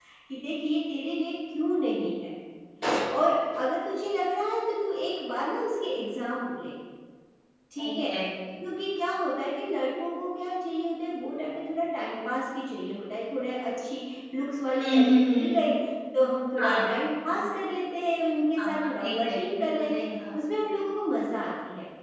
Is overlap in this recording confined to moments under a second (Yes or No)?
No